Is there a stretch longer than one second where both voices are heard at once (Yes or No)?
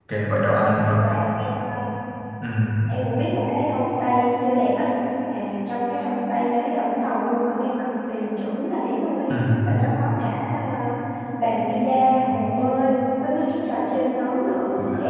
No